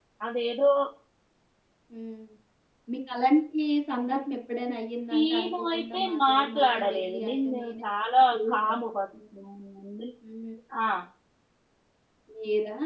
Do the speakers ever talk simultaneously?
Yes, from 5.1 s

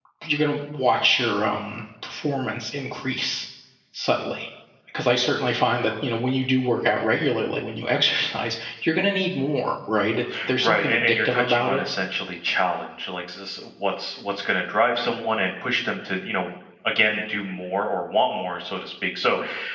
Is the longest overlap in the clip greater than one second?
Yes, from 10.6 s

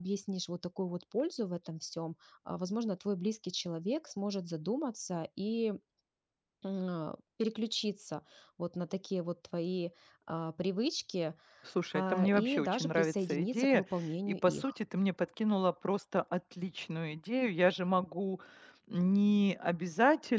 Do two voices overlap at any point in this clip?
Yes, from 11.9 s

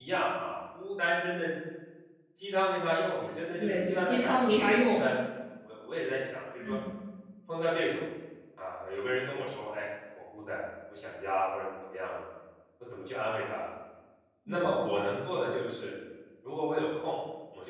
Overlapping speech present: Yes, from 3.6 s

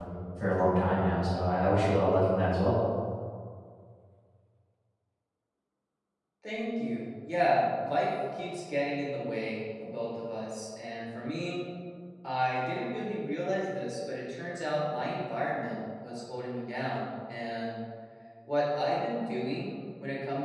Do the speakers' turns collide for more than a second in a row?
No

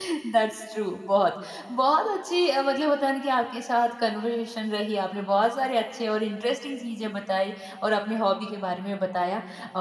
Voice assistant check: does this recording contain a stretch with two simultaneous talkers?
No

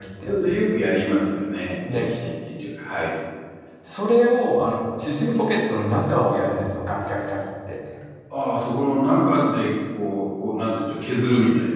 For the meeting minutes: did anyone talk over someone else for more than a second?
No

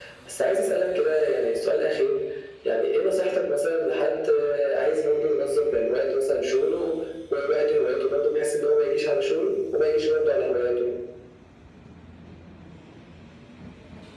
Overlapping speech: No

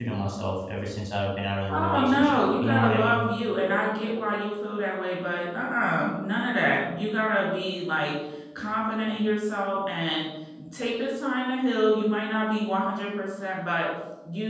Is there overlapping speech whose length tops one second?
Yes, from 1.7 s

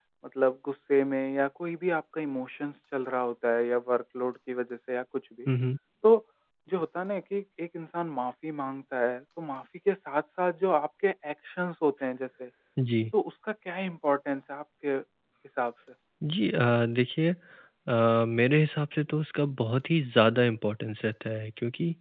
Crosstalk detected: No

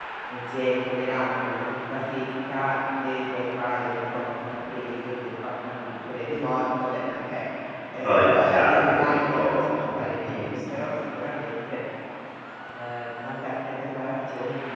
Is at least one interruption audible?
Yes, from 8.0 s

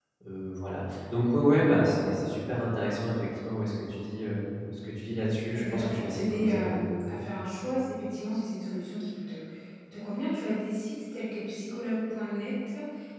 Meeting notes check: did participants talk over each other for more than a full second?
Yes, from 5.5 s

